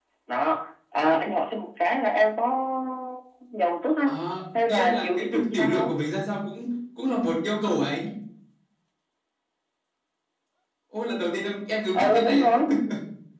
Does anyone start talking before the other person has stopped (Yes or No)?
Yes